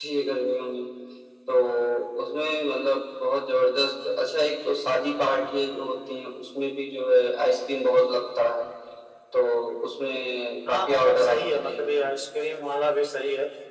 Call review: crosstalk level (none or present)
present